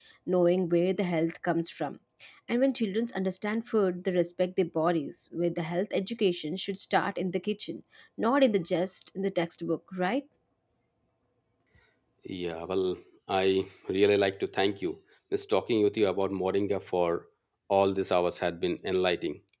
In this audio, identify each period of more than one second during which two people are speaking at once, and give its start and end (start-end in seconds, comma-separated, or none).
none